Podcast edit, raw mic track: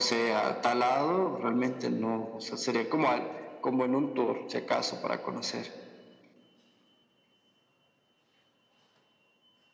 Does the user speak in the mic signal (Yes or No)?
No